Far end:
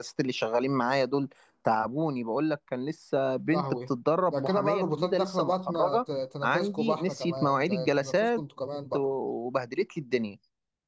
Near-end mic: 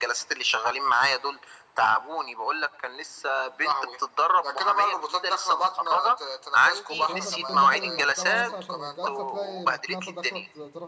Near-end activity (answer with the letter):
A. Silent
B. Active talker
B